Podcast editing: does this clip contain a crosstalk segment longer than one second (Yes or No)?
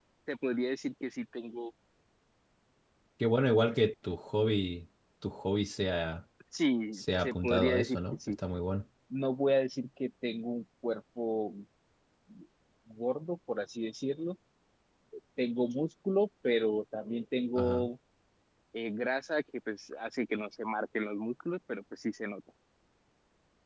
Yes